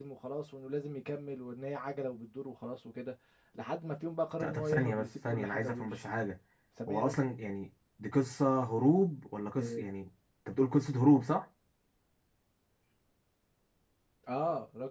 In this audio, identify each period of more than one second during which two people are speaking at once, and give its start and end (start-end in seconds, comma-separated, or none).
4.4-6.0